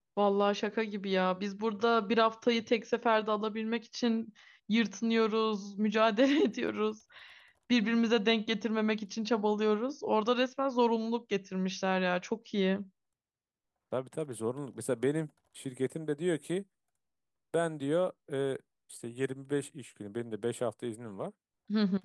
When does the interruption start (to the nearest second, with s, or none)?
none